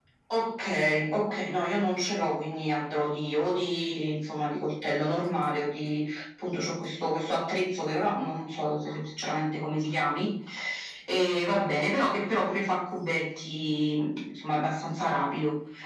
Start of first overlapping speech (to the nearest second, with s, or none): none